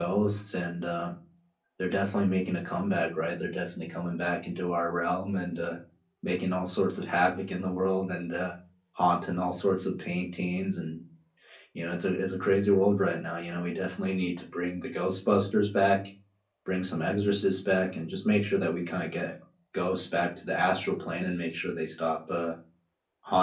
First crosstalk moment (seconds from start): none

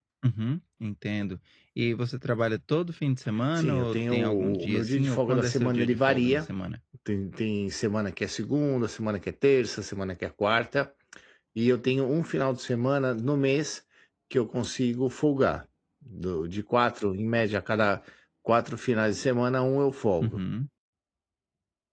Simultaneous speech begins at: 3.6 s

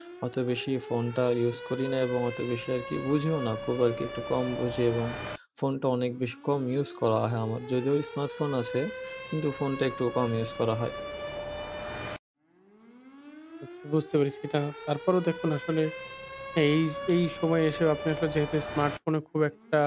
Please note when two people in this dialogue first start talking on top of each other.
none

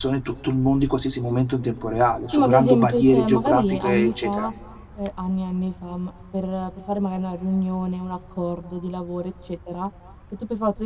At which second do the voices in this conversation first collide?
2.3 s

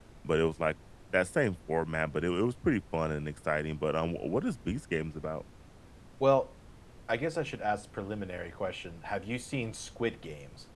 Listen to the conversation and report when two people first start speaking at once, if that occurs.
none

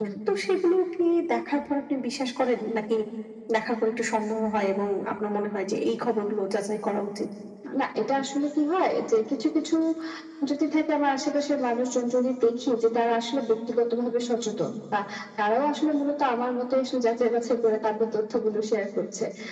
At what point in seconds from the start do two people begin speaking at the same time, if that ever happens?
none

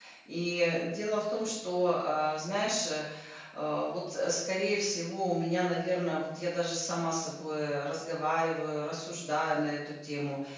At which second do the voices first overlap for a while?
none

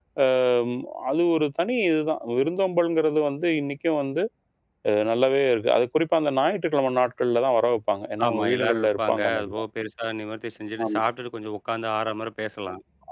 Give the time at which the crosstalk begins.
8.2 s

